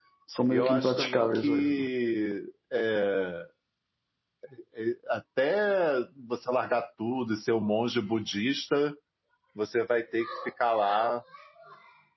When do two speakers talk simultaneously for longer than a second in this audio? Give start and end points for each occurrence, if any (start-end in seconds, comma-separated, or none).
0.5-1.9